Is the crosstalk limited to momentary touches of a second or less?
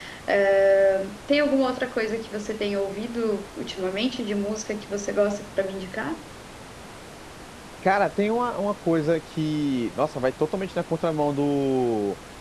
Yes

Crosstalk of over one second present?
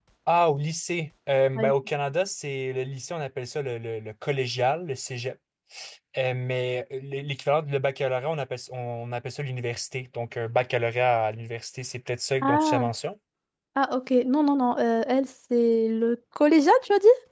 No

